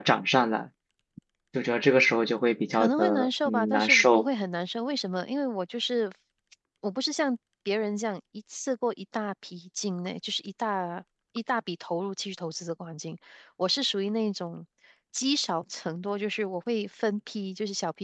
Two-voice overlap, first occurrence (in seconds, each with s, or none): 2.7 s